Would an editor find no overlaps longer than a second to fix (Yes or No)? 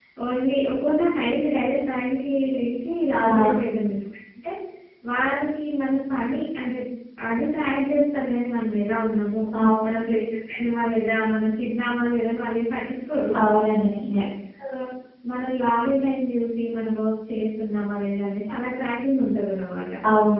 Yes